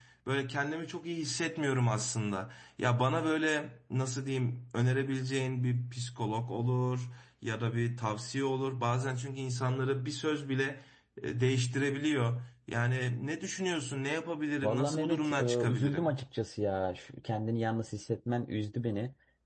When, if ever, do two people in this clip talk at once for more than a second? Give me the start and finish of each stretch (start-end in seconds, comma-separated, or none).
14.6-16.1